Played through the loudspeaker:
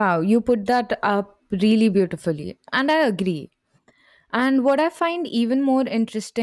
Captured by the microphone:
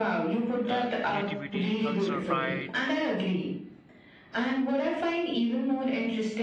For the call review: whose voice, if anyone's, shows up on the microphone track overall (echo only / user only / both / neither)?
both